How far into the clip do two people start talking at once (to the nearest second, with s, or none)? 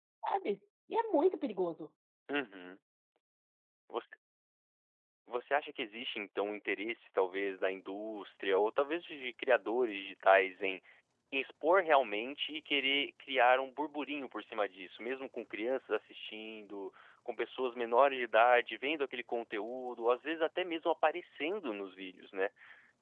none